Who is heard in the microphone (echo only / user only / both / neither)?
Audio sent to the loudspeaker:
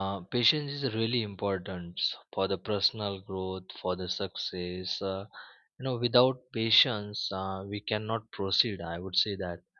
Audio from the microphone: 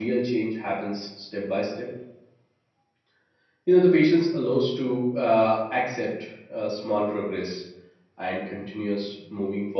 user only